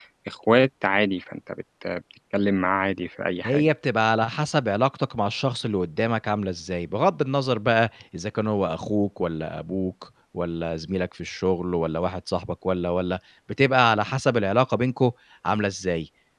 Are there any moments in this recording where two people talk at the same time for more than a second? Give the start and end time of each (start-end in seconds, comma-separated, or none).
none